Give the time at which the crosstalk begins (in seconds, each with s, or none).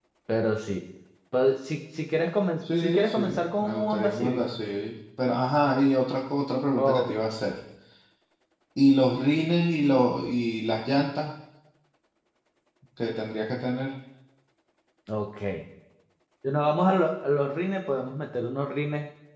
2.8 s